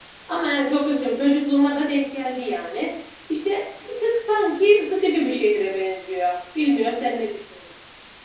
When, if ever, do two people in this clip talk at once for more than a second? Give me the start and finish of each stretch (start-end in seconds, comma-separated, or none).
none